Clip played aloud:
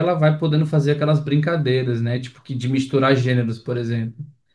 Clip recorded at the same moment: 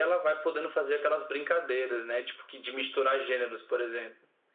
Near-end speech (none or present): none